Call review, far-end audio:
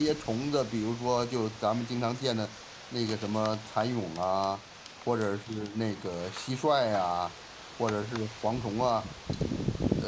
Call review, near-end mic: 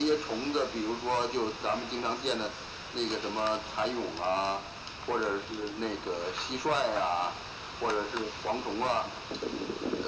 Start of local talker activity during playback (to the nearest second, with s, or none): none